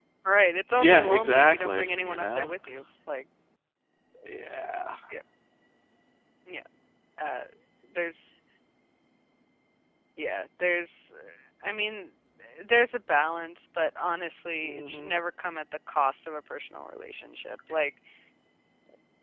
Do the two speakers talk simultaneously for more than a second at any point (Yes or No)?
Yes